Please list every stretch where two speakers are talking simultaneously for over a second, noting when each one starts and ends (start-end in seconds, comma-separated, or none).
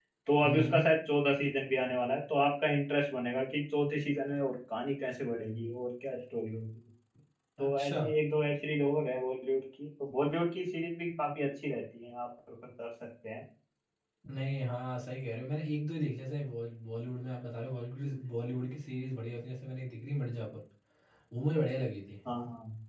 none